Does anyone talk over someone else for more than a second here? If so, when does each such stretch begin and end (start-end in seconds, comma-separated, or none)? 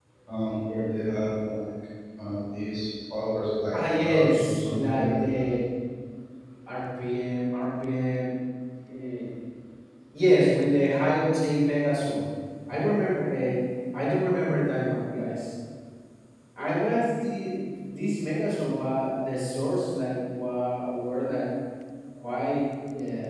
4.0-5.4